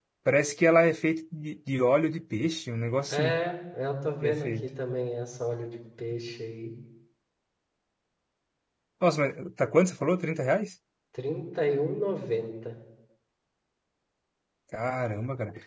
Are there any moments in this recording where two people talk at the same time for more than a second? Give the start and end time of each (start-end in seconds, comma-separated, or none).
none